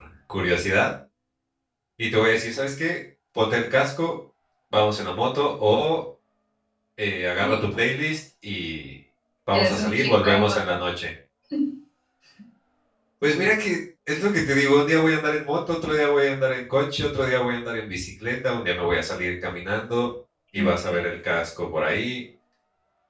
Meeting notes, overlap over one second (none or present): present